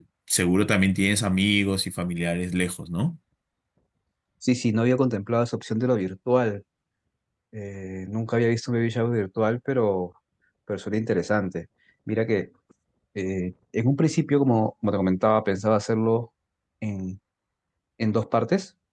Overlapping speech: No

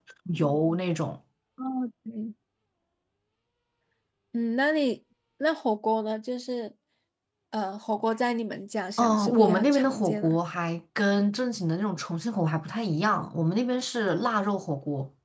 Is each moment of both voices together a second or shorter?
No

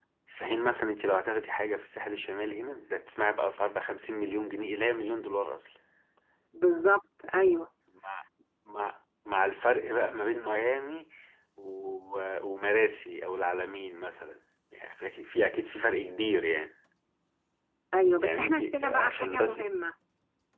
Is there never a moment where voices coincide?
No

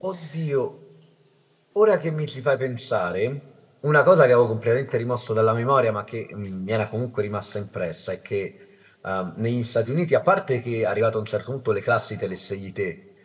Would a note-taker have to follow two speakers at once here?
No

